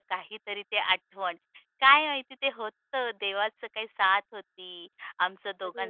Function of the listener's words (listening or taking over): listening